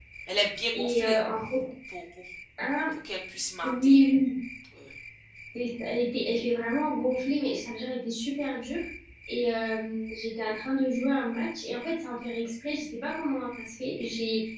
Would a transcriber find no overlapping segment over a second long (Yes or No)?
Yes